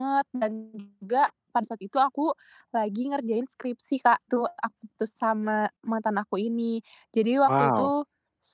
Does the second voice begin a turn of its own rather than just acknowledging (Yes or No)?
No